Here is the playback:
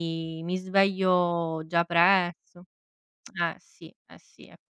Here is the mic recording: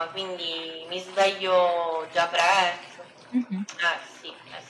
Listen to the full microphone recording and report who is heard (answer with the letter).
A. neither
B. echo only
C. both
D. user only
C